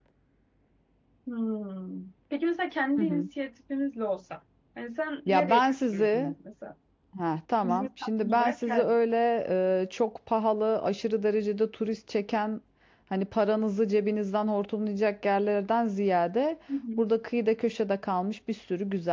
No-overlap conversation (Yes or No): No